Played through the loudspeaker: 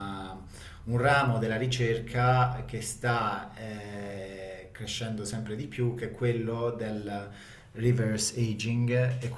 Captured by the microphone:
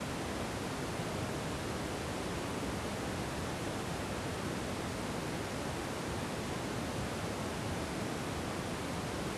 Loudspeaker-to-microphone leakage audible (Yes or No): No